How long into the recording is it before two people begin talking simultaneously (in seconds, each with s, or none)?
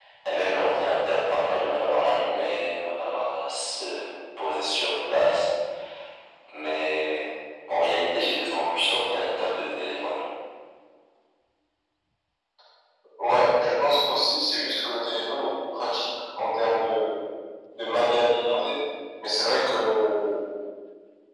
none